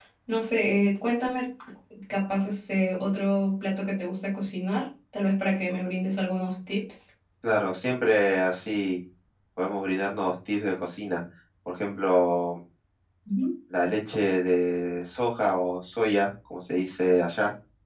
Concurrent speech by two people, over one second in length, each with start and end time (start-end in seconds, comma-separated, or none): none